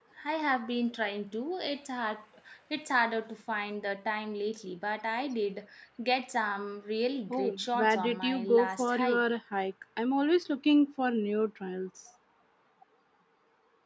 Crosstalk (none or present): present